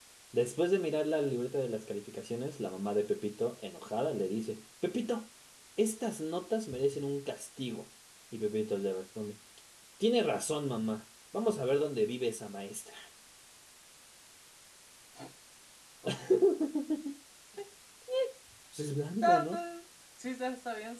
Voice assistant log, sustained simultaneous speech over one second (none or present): none